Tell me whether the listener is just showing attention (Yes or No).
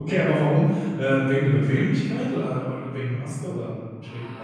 No